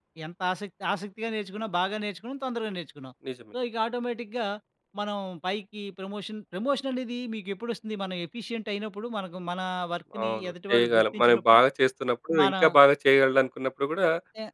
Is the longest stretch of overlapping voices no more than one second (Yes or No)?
No